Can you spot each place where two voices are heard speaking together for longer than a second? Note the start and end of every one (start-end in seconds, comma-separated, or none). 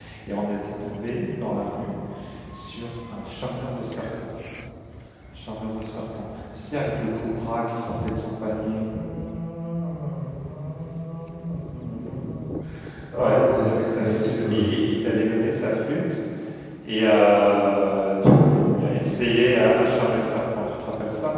13.2-14.8